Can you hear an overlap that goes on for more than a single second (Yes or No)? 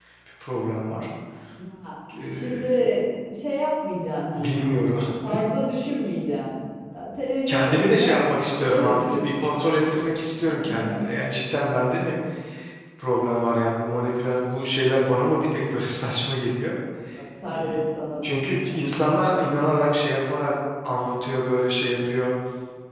Yes